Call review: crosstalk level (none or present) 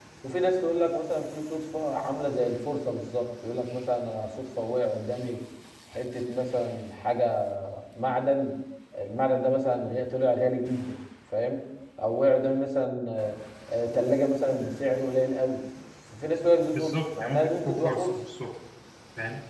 present